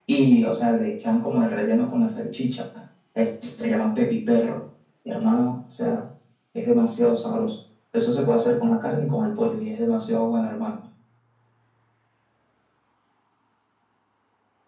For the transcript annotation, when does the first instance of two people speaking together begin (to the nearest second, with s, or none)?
none